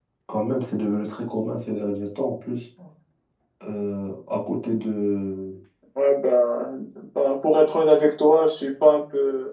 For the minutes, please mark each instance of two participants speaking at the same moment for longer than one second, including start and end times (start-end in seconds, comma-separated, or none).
none